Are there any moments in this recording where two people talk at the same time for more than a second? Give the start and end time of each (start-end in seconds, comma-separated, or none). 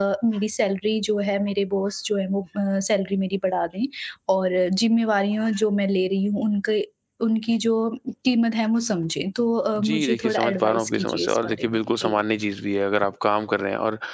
9.8-12.2